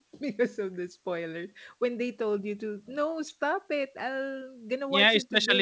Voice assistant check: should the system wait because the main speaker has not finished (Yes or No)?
No